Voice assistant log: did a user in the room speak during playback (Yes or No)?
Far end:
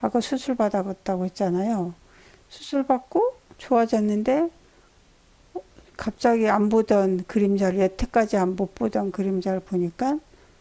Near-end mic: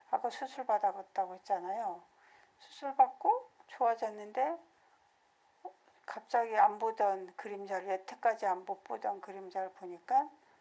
No